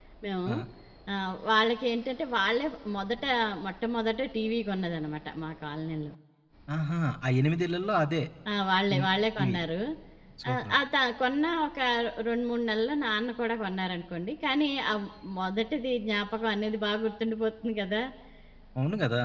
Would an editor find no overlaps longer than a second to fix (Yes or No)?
Yes